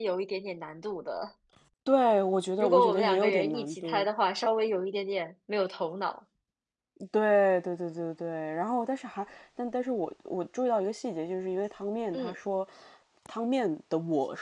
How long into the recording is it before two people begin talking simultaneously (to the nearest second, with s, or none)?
3 s